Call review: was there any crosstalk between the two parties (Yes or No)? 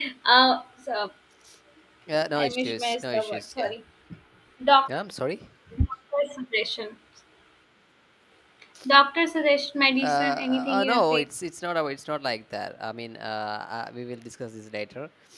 Yes